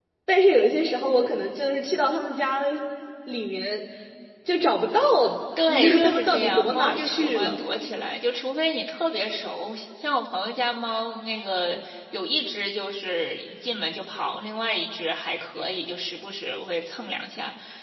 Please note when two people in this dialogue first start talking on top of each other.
5.7 s

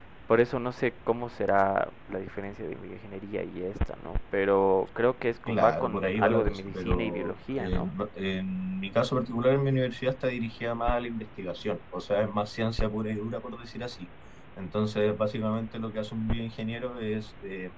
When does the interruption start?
5.5 s

